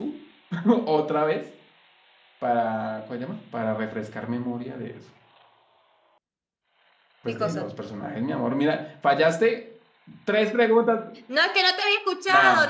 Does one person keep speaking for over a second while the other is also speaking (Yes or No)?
No